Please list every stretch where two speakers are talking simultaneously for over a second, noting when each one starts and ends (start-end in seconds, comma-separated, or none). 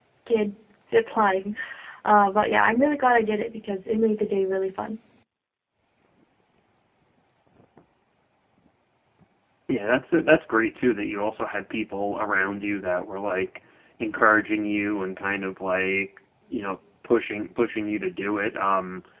none